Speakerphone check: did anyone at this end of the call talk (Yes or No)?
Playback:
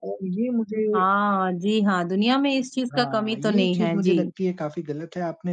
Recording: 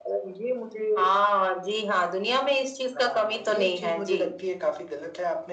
No